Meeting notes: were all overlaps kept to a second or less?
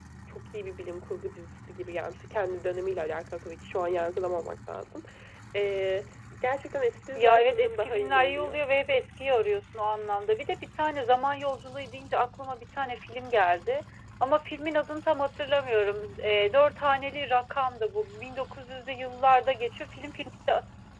No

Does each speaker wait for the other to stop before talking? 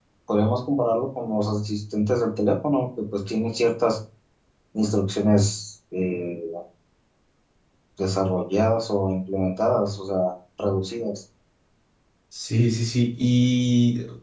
Yes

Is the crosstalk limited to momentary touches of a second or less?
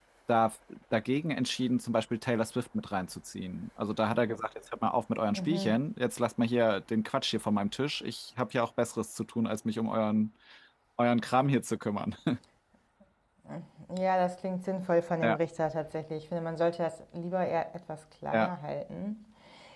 Yes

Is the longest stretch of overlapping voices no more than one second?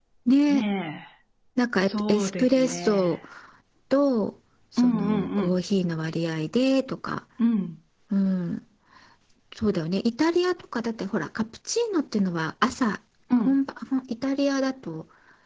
No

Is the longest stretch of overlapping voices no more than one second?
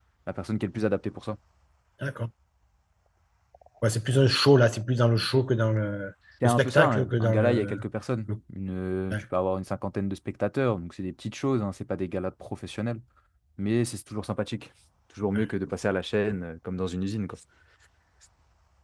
No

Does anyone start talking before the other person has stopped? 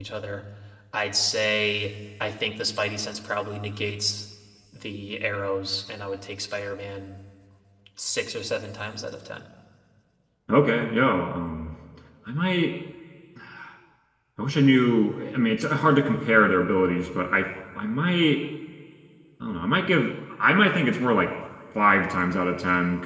No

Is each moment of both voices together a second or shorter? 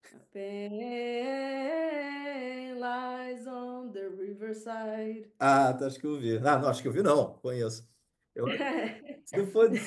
Yes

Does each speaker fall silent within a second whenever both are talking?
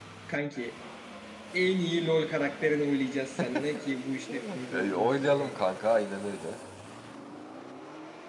No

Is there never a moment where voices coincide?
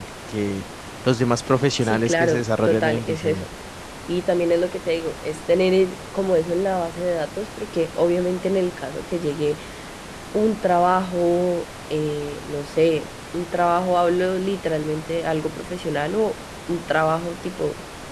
No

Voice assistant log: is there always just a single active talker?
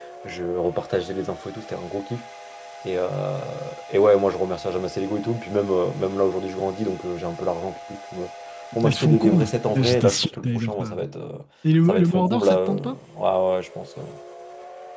No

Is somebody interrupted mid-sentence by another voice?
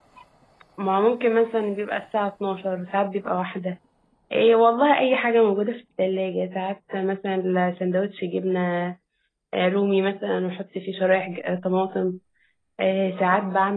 No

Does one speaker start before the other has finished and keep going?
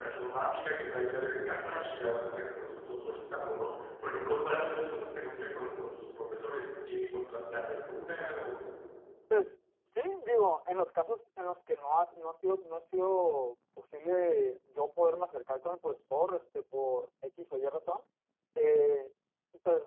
No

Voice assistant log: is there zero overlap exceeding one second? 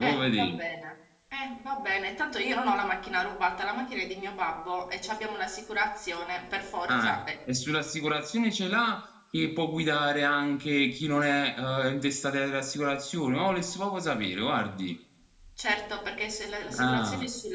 Yes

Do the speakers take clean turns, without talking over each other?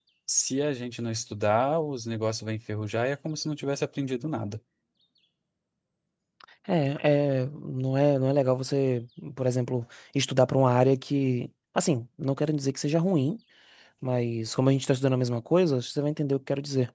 Yes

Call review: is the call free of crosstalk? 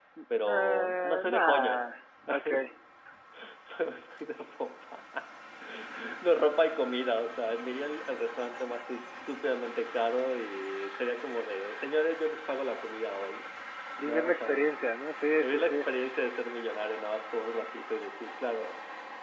No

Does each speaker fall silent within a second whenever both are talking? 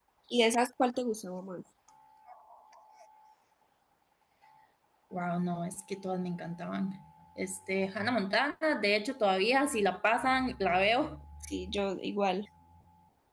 Yes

